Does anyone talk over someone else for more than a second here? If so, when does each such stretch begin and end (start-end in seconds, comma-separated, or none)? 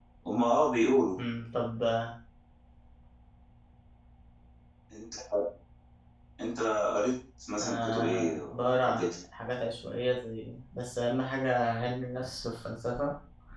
7.6-9.0